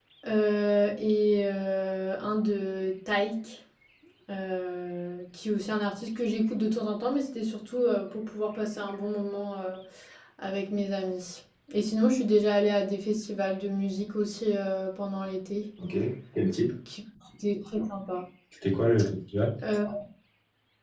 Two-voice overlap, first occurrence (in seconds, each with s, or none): none